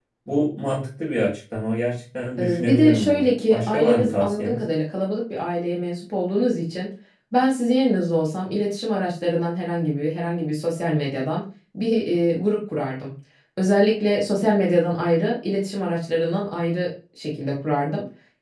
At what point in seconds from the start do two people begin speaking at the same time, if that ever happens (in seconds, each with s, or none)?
2.4 s